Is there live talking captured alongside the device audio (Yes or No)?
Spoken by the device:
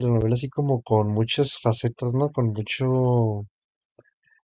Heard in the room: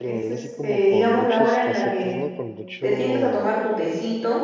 Yes